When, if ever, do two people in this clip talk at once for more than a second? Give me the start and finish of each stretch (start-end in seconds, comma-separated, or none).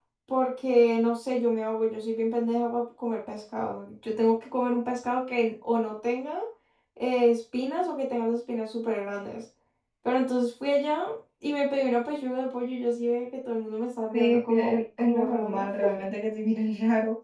14.1-15.6